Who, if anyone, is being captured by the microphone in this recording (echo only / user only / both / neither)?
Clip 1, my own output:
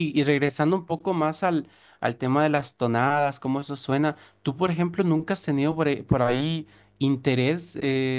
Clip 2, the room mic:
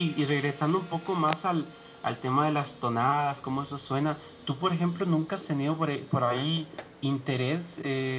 echo only